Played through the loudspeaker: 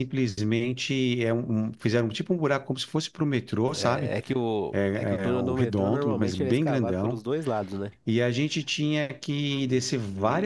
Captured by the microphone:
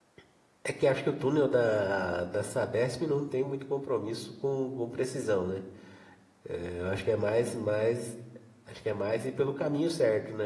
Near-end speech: present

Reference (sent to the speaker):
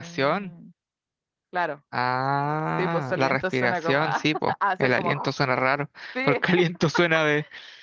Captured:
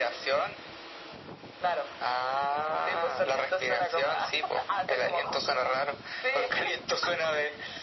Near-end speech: none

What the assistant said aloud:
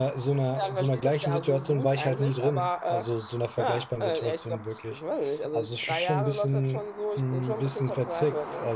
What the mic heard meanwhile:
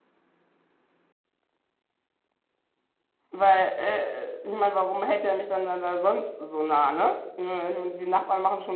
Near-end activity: present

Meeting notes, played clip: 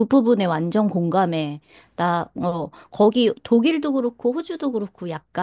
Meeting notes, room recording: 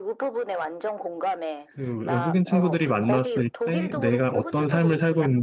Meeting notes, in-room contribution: present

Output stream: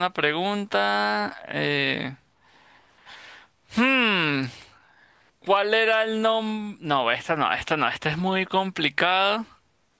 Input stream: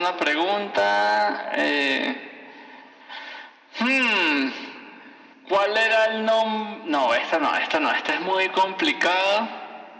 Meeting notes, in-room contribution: none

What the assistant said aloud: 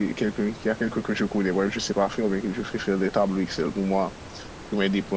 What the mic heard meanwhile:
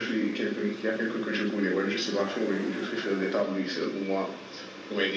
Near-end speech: none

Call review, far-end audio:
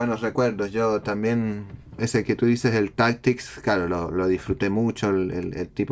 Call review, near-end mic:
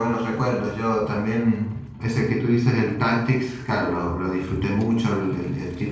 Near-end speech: none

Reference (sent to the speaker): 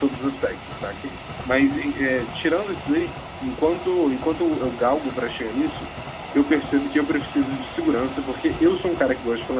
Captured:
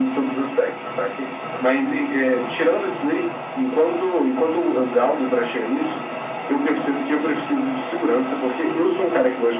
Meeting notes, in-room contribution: none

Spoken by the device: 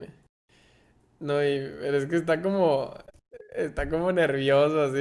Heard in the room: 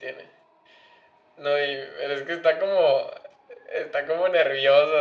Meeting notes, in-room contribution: none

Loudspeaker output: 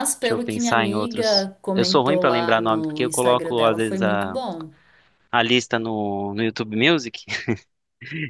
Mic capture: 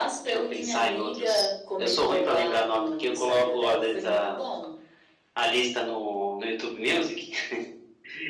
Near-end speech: none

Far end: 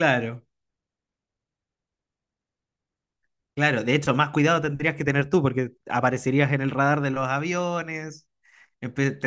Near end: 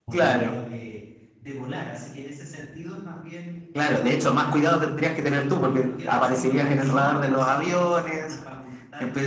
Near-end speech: present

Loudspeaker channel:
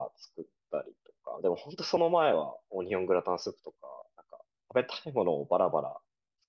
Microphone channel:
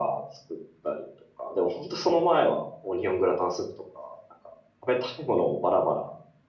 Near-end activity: none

